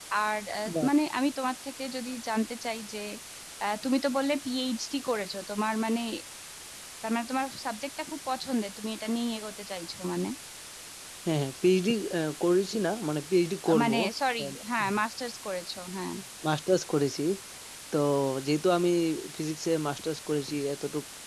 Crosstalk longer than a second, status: none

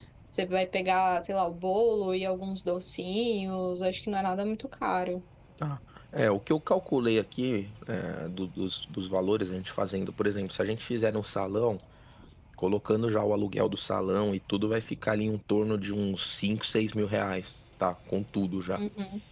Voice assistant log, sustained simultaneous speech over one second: none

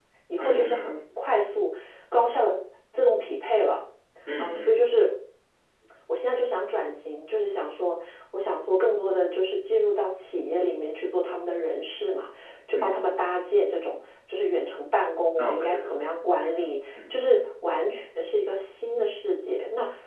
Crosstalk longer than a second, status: present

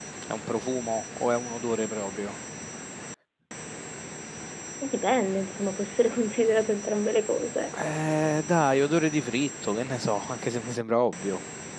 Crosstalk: none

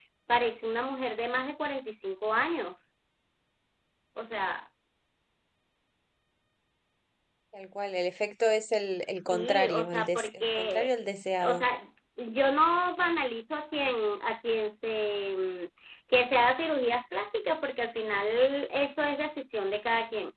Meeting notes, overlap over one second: present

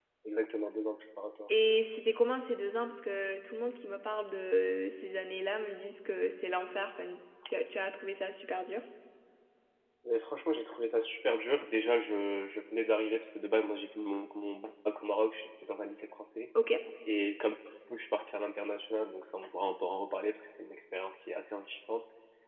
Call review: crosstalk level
none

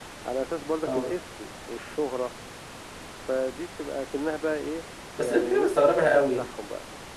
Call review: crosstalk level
present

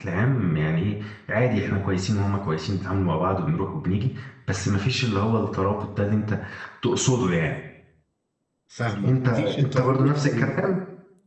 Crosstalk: present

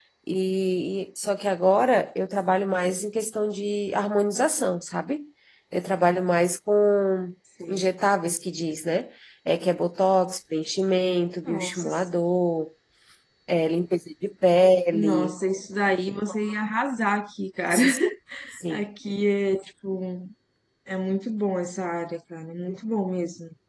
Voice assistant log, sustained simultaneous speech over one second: none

